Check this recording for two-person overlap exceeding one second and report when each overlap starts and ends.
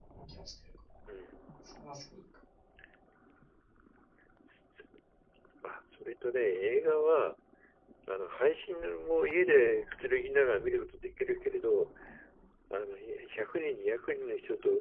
none

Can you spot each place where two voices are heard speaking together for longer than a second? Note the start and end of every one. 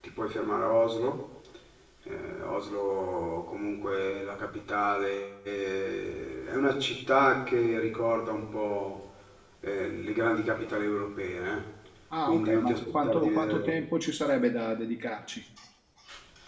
12.3-13.7

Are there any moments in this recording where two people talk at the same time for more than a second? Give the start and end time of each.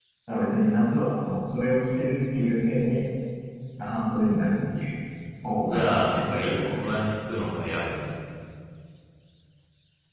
5.6-6.8

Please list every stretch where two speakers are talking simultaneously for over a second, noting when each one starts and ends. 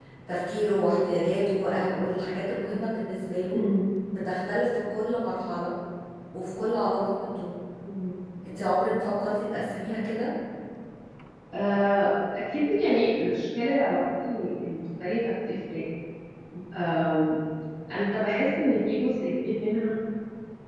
none

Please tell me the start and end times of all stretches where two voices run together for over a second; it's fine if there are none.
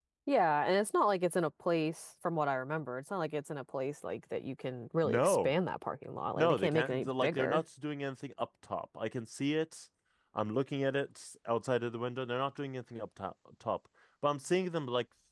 6.4-7.6

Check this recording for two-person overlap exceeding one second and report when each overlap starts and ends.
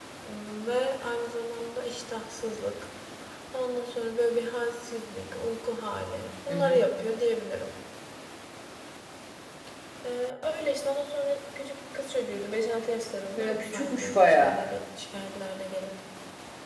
13.4-14.6

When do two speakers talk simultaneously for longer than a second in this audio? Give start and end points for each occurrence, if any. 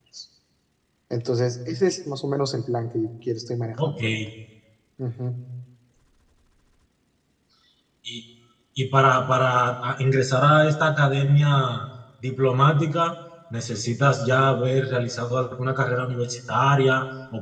none

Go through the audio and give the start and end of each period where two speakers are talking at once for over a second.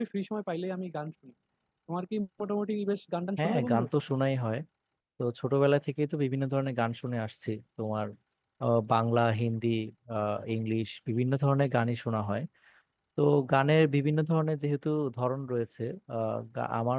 none

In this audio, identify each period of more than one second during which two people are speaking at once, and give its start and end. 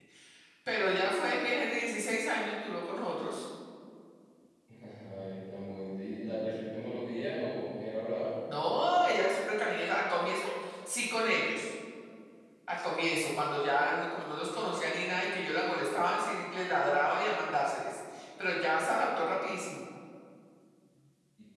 none

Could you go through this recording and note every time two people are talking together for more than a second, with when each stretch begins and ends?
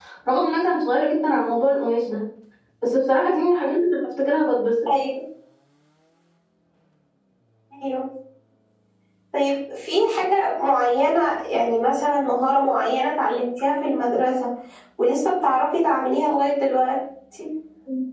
none

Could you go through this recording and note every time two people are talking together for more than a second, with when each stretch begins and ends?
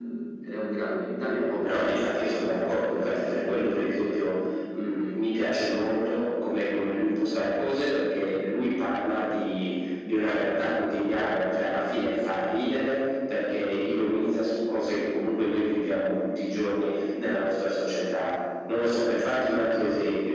1.6-4.0

